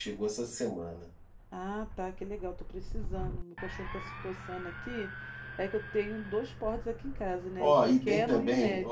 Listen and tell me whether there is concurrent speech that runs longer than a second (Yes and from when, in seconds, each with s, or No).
Yes, from 7.6 s